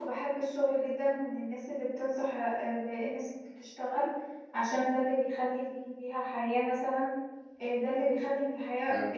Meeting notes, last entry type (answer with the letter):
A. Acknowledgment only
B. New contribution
A